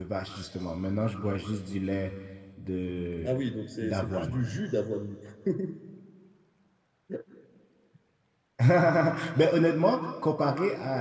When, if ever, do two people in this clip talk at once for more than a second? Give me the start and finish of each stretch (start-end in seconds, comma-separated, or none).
none